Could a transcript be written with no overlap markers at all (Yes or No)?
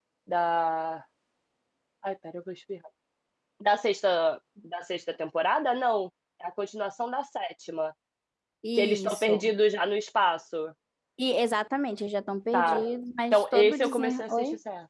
No